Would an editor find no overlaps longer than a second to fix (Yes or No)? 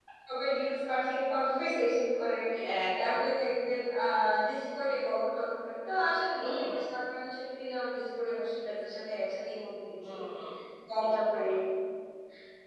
Yes